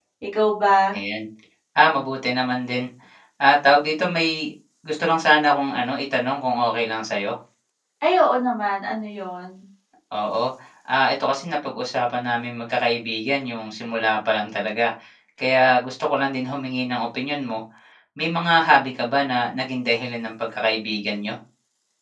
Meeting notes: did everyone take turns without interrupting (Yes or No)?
Yes